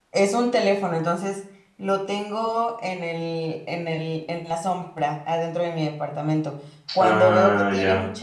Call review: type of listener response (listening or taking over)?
listening